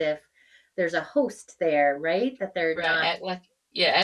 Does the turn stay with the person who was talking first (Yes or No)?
No